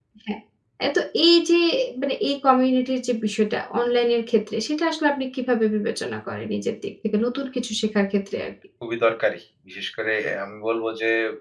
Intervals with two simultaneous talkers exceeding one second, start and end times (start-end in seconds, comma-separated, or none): none